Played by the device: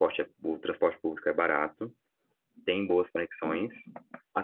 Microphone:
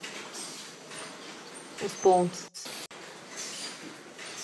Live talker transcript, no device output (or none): os pontos.